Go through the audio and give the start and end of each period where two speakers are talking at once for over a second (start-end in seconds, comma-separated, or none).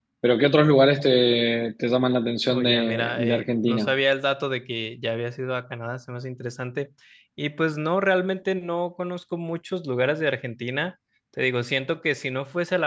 2.5-3.9